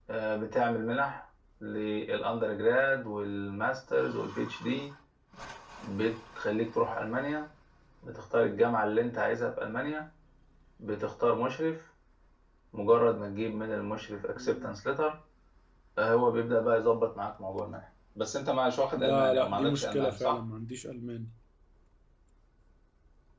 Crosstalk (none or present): present